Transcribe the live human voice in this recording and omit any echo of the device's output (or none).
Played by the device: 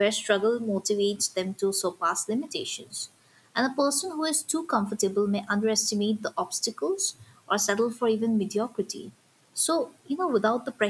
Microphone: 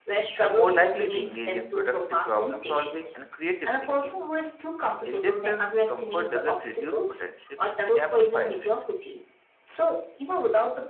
are more likely to engage in productive problem solving and creative thinking. In this sense, comfort doesn't reduce potential, it amplifies it.